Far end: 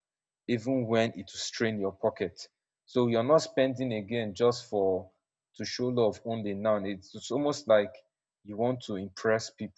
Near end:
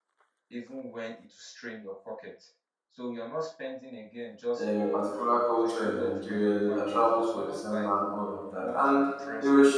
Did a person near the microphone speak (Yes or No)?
Yes